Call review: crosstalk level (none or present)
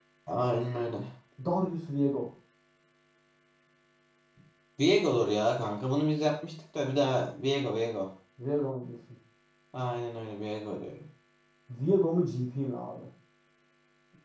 none